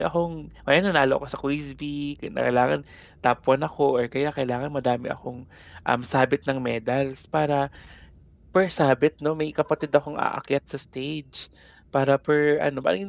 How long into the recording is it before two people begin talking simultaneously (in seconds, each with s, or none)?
none